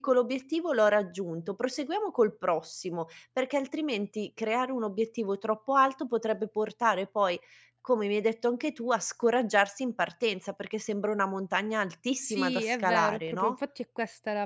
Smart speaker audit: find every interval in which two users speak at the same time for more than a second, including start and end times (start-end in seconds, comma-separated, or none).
12.2-13.5